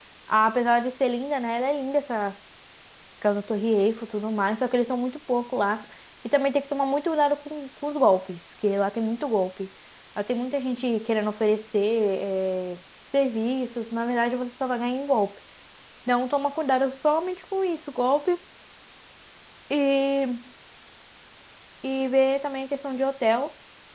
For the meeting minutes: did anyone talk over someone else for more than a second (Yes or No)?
No